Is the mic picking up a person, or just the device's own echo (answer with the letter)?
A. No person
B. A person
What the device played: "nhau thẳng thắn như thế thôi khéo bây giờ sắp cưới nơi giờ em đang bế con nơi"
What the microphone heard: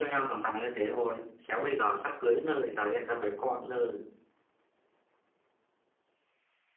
A